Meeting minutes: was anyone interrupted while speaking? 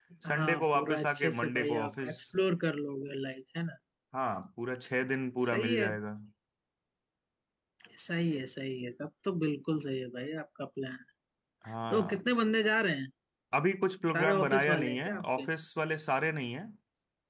Yes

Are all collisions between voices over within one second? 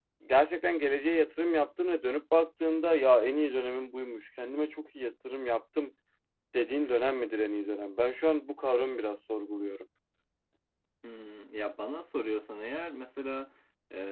Yes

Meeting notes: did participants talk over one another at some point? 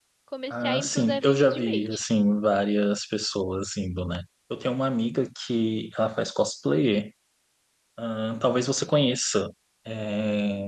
Yes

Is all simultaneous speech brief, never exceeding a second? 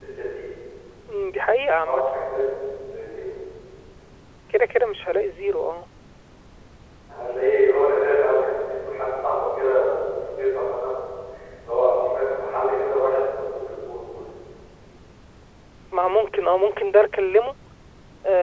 Yes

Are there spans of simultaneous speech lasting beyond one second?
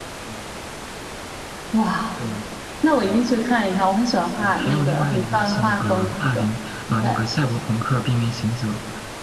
Yes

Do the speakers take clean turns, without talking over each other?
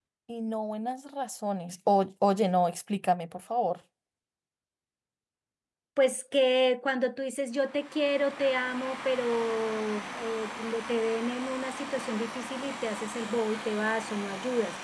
Yes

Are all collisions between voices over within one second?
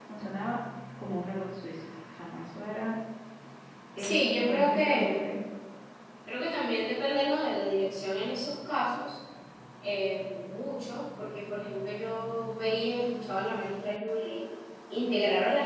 No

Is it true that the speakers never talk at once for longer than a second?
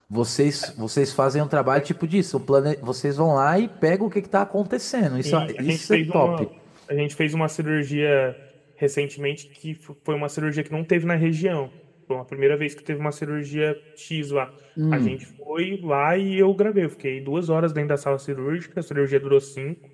No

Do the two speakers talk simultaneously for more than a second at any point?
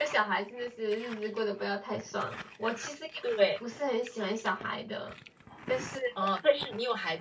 No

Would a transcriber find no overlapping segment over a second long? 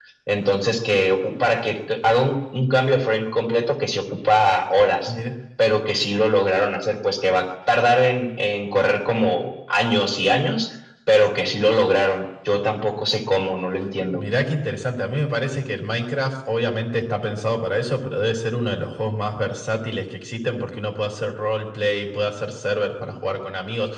Yes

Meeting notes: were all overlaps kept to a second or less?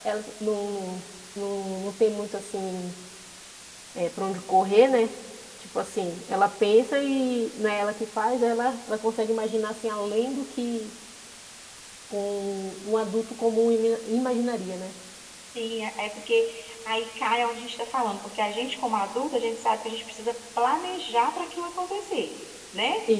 Yes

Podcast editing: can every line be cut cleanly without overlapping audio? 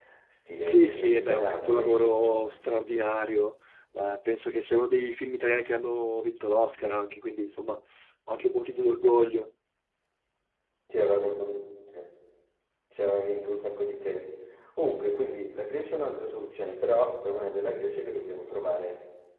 No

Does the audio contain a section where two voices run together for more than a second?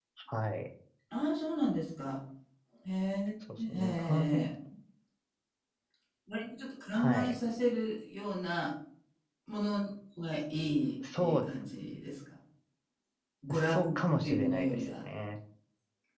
Yes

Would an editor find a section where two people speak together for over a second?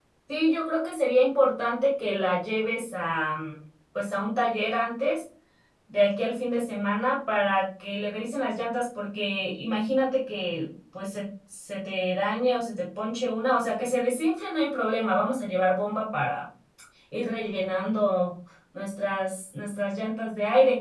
No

